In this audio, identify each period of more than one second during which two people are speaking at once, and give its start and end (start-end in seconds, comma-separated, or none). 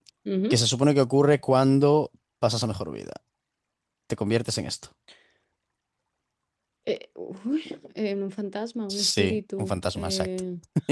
8.9-10.3